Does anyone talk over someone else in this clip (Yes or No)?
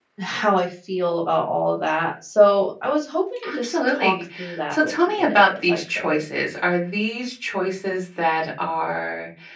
Yes